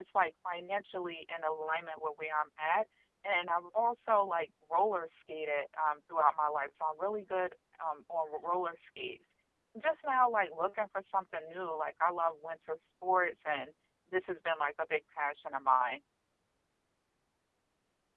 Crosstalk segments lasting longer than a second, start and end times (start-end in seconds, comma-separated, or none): none